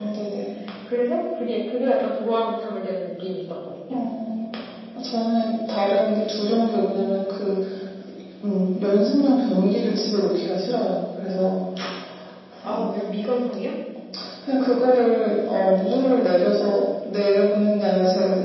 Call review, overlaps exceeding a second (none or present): none